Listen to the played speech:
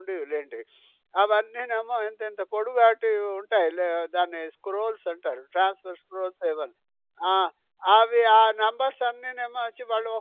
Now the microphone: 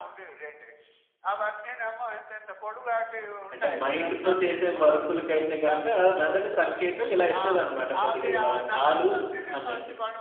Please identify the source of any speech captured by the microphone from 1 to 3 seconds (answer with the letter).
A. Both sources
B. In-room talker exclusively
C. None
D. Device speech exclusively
D